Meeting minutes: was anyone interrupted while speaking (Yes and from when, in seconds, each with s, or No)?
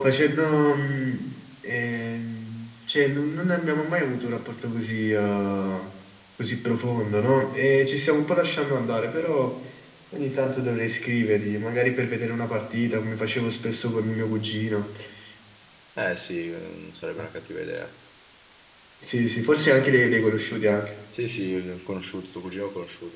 No